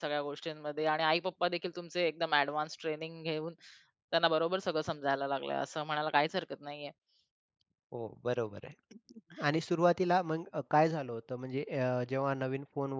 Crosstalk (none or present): none